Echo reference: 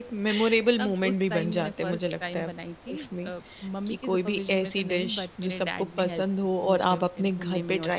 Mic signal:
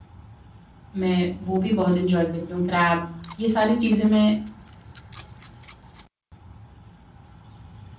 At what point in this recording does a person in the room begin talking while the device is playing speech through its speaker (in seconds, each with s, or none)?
1.0 s